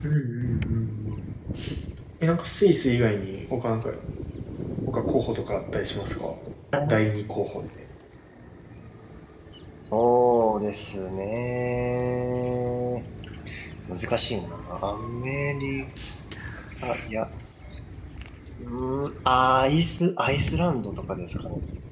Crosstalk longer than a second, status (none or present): none